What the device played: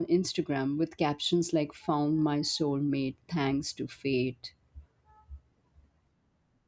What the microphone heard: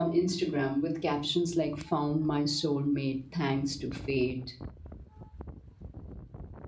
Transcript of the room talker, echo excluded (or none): none